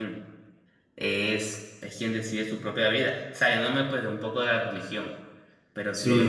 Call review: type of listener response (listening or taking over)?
listening